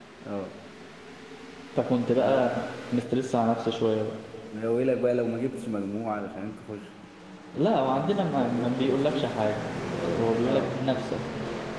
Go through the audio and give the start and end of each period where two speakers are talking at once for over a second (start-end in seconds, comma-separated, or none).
7.8-9.3